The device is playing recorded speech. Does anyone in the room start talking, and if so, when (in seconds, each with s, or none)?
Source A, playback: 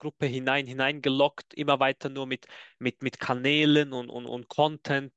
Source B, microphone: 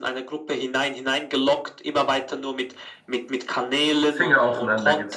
4.1 s